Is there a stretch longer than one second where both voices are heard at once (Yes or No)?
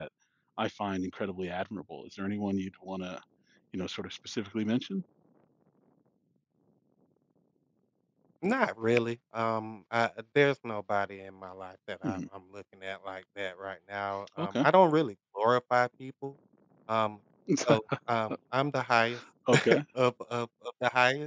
No